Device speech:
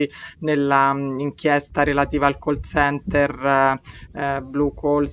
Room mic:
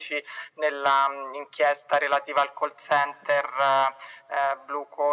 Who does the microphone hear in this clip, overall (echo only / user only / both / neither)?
echo only